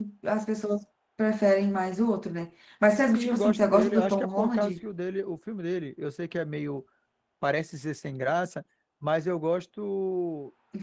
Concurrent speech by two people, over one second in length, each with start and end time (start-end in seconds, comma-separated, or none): 3.0-4.7